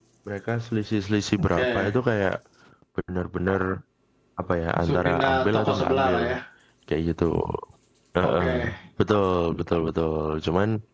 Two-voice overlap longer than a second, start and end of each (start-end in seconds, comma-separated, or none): 4.8-6.2